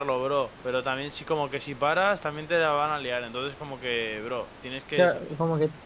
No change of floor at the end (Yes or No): No